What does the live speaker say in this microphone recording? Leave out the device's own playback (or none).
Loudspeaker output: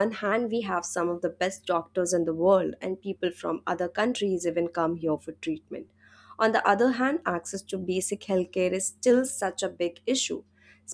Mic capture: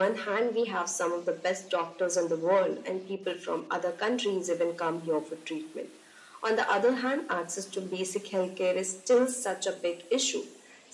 none